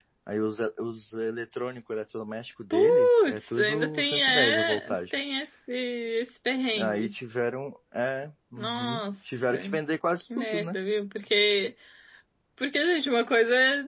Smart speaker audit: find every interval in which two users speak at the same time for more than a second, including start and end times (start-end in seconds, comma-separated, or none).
2.7-5.0, 8.6-9.8